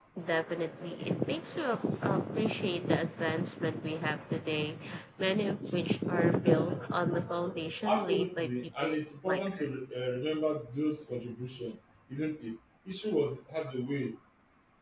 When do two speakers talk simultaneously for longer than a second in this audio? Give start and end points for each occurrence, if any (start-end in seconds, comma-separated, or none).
7.8-9.7